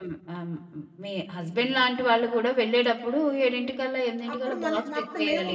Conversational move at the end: taking over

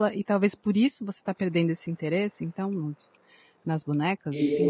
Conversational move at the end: taking over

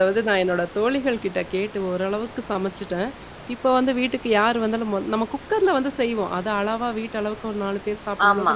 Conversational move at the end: listening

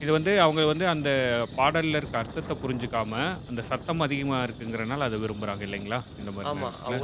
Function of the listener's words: taking over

